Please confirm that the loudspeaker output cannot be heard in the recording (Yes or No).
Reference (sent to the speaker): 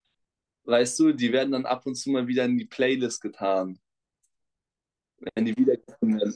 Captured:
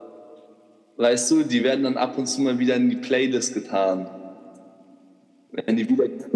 No